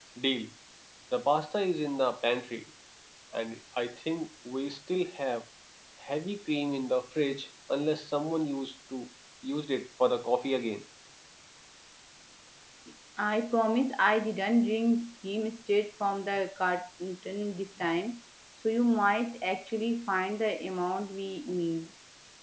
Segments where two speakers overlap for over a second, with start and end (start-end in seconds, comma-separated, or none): none